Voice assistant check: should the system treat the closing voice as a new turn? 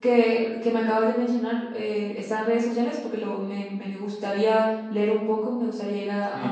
Yes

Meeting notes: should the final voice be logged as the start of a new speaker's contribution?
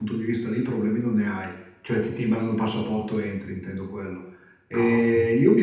No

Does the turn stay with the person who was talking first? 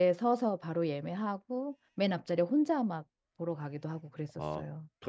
No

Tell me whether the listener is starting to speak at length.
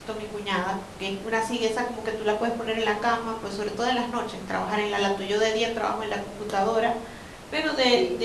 No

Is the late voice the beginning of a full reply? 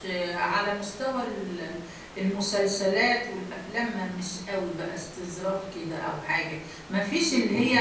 No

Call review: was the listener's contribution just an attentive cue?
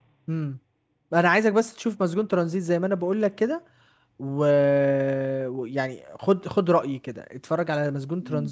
No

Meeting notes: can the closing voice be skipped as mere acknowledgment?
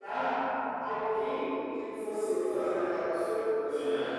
No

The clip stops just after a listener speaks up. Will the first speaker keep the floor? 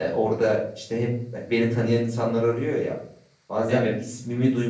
Yes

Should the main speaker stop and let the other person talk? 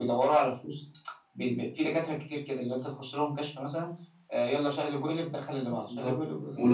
Yes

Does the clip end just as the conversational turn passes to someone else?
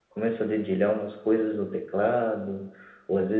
No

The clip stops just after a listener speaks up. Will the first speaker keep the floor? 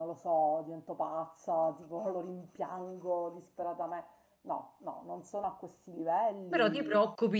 No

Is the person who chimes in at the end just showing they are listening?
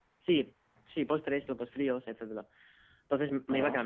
Yes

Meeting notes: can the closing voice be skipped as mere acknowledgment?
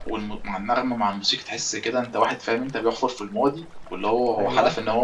Yes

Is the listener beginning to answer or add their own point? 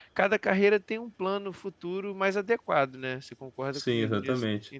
Yes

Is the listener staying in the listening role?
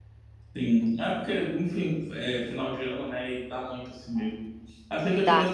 Yes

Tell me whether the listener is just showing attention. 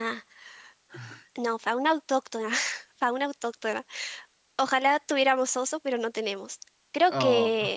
Yes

